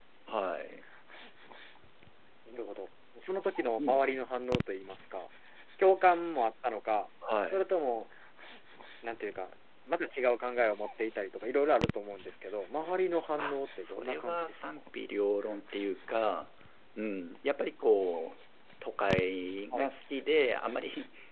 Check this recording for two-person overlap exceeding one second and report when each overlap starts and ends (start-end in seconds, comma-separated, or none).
13.4-14.6